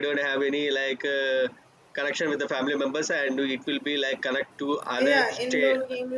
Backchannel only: No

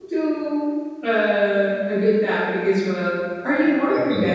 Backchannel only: Yes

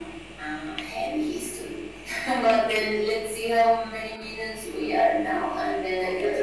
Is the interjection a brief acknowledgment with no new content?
No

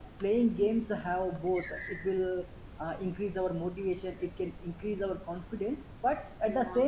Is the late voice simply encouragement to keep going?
Yes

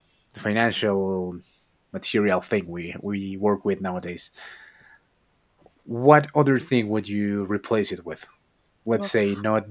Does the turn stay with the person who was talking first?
Yes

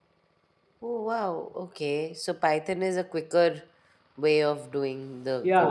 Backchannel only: No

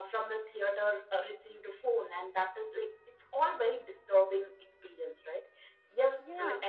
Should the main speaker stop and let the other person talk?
No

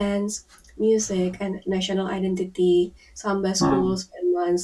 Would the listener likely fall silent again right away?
Yes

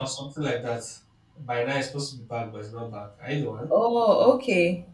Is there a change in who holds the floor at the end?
Yes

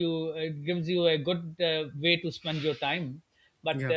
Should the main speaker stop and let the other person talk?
No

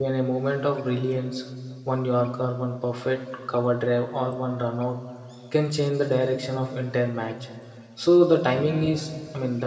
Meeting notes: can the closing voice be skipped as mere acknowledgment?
Yes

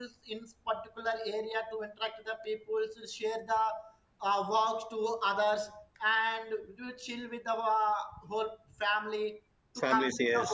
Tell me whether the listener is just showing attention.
Yes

